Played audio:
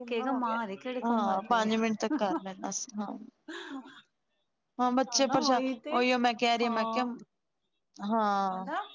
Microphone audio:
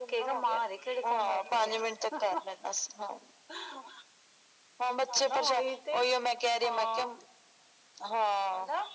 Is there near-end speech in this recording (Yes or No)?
No